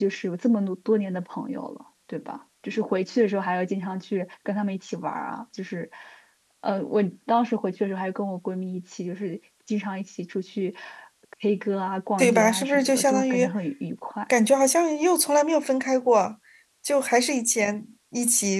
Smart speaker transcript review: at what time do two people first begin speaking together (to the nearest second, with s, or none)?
12 s